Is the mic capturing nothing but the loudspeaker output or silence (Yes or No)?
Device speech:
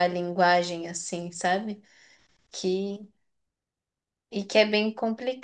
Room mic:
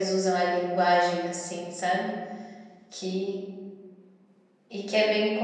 Yes